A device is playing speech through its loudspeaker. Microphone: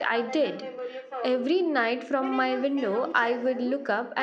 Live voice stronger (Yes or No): Yes